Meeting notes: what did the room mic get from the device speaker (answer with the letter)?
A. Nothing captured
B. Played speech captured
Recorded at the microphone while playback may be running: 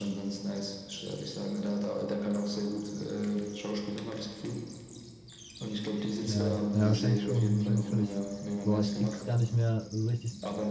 B